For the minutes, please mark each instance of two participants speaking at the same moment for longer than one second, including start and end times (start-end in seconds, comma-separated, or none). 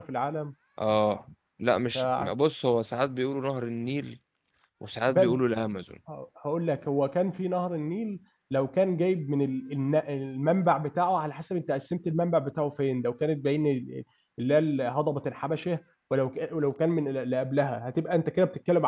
none